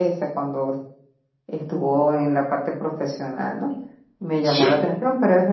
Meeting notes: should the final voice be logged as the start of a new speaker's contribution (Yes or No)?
No